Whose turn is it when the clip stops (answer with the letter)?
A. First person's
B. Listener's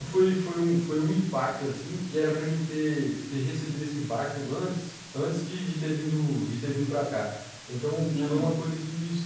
A